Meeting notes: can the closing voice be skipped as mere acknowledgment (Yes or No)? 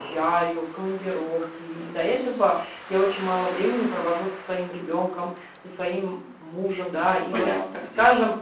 Yes